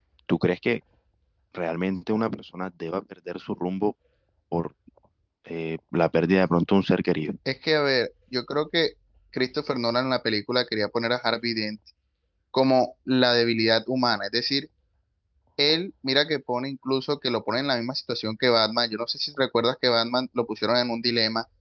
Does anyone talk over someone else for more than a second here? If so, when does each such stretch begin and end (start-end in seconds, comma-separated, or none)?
none